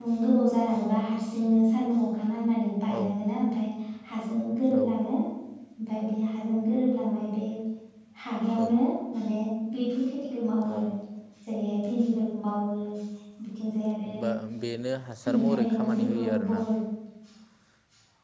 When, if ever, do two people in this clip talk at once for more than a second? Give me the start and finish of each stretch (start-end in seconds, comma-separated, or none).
15.3-16.6